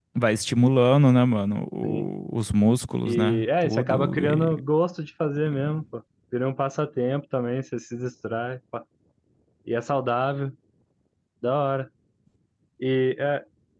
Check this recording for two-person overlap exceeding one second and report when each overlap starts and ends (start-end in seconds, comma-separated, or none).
3.0-4.6